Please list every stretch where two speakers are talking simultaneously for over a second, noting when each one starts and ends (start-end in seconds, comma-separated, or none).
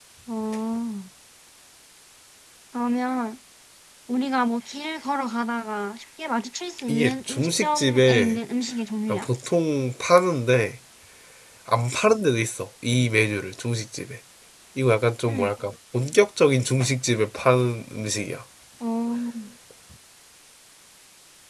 6.9-8.4